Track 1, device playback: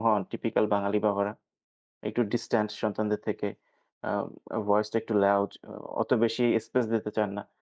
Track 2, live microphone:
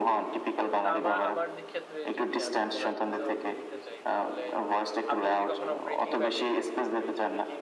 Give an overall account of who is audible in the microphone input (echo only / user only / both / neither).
both